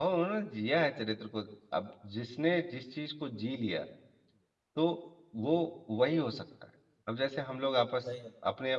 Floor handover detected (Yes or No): No